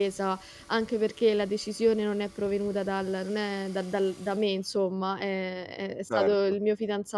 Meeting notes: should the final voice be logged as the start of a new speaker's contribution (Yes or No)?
No